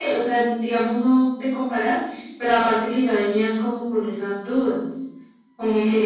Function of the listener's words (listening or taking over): listening